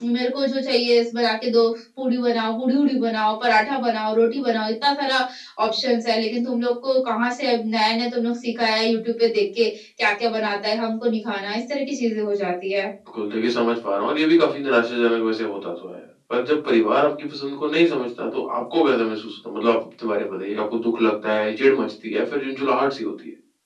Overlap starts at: none

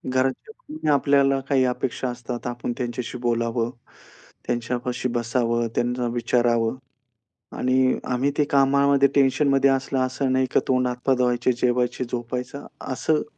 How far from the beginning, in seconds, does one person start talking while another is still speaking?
none

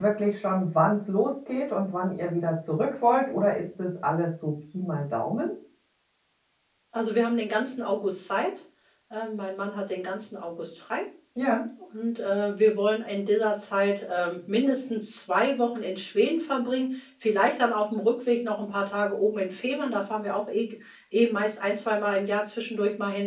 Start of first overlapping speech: none

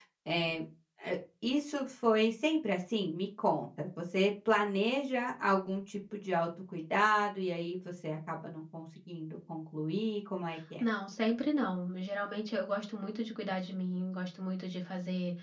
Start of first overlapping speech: none

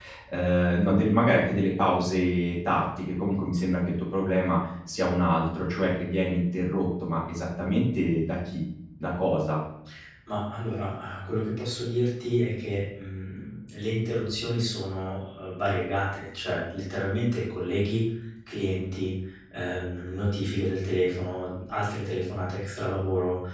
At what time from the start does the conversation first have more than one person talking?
none

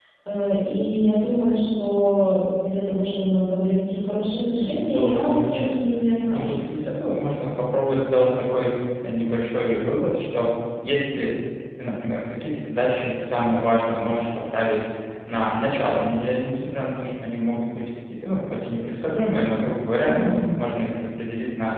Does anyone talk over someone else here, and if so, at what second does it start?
5 s

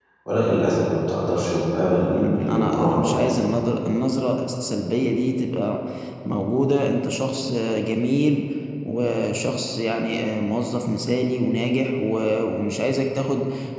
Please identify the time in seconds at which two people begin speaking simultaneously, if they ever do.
2 s

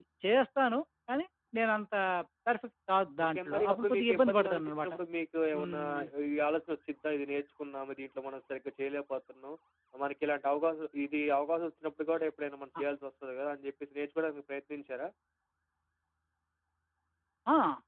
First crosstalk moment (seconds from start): 3 s

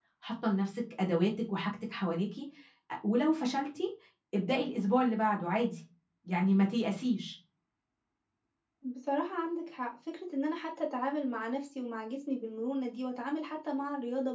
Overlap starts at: none

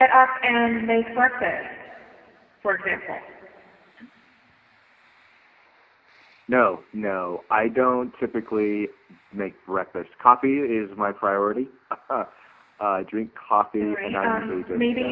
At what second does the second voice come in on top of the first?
14 s

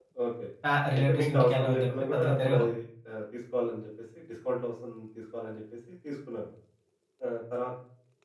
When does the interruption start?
1 s

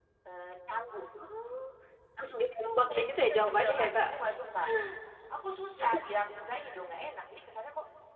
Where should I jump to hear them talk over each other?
3 s

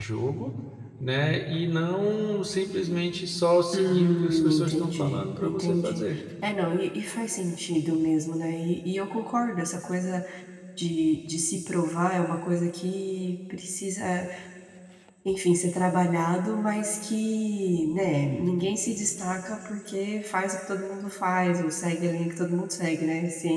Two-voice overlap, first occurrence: 4 s

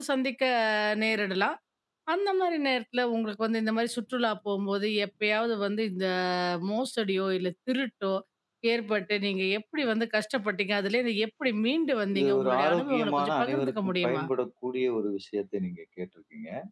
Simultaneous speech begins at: 12 s

